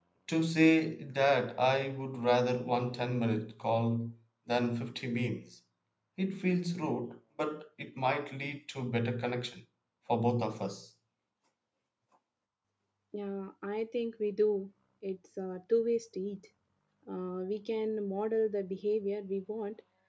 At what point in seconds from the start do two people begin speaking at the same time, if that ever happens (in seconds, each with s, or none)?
none